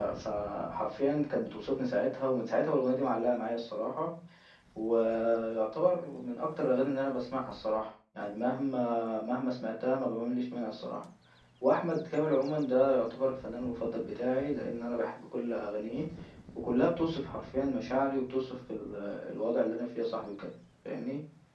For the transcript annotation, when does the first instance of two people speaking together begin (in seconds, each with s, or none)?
none